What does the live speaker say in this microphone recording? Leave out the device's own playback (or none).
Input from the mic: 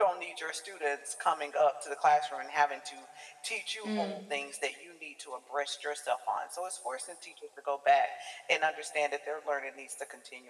Mm.